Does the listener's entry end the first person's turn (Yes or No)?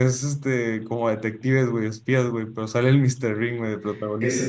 Yes